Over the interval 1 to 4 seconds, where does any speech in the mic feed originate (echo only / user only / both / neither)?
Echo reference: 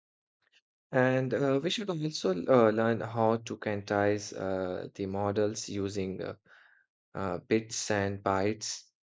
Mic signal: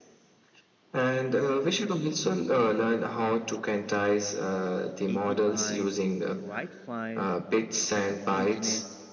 echo only